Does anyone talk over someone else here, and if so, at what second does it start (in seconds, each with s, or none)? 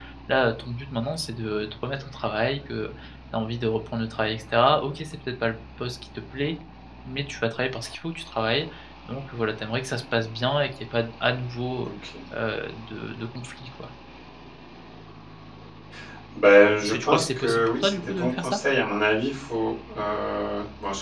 16.8 s